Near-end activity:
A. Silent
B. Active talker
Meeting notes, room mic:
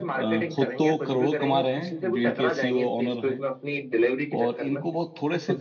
B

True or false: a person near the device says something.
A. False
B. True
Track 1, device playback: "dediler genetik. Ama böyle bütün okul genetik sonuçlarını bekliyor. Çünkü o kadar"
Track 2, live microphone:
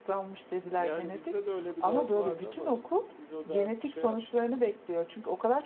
B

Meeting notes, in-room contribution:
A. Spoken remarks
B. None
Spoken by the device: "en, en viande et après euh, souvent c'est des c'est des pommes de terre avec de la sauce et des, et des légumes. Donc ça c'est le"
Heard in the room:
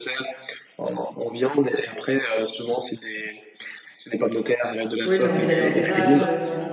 A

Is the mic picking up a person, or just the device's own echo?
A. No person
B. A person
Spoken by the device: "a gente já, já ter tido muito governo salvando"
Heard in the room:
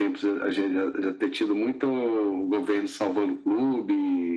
A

